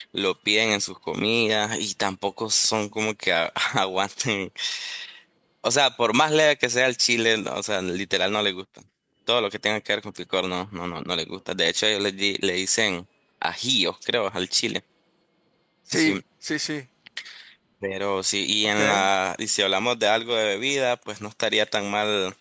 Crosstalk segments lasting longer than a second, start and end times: none

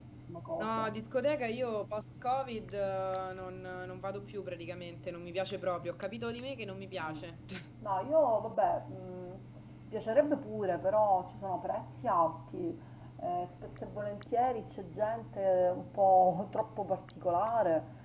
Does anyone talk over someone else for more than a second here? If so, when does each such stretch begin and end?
none

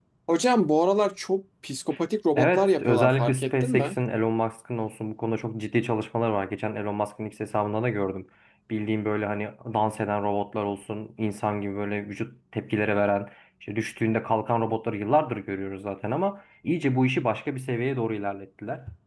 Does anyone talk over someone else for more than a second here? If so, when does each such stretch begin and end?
2.4-4.0

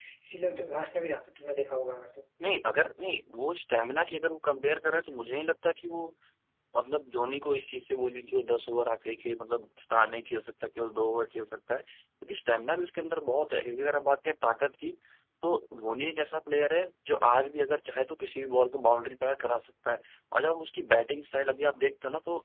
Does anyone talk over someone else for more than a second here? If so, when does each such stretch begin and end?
none

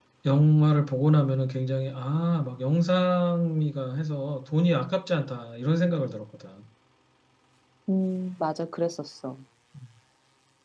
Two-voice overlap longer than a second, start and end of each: none

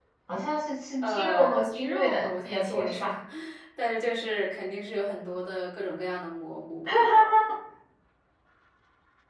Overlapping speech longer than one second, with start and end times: 1.0-3.1

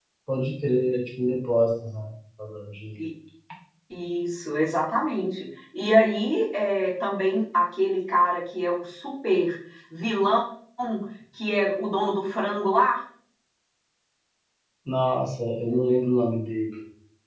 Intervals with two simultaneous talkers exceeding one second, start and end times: none

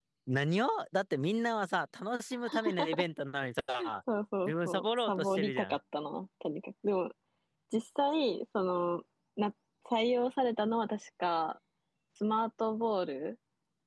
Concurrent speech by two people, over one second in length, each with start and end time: 4.5-5.8

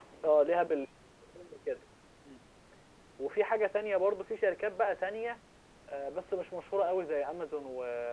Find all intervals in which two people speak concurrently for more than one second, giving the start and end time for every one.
none

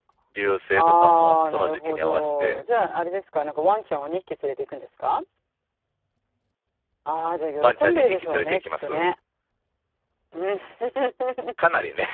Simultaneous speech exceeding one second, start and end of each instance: 0.7-2.6, 7.6-8.9

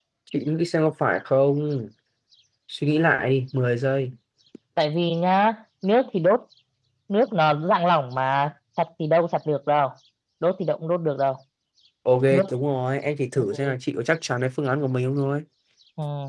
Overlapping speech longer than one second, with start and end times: none

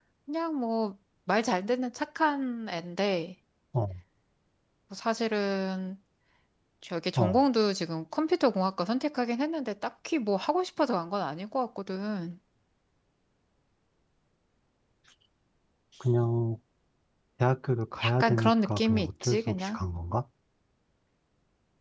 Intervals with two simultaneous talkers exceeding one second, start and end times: 18.0-19.8

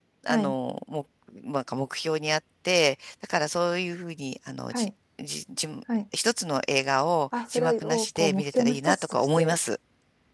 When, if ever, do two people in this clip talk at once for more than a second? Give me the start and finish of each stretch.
7.5-9.6

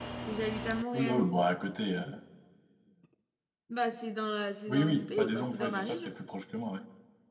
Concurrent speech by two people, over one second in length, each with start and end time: 4.7-6.1

